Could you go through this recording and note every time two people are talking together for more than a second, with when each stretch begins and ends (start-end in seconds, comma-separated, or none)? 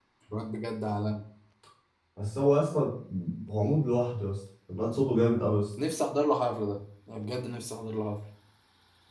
none